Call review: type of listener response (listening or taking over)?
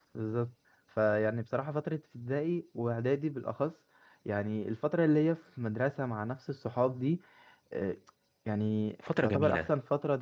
listening